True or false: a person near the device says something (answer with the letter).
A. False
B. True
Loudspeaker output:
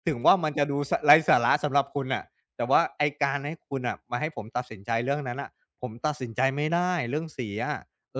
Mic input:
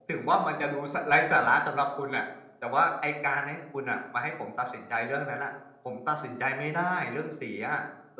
A